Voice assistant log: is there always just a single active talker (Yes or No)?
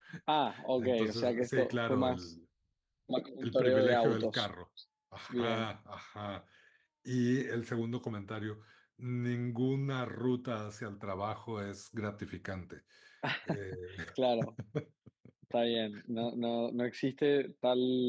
No